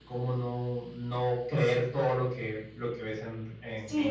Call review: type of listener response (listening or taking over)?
taking over